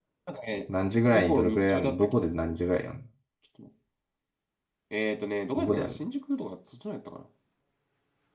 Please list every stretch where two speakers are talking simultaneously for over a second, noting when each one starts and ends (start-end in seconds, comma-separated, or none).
1.1-2.6